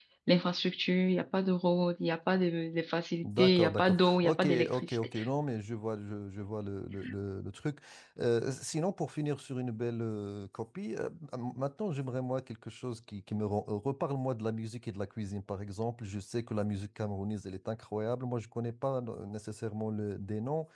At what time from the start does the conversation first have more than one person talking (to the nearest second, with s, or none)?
3 s